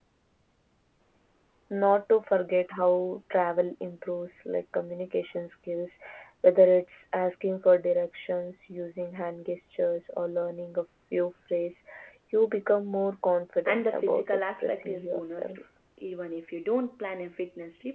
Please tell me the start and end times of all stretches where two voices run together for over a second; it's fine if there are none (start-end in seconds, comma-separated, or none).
13.7-15.6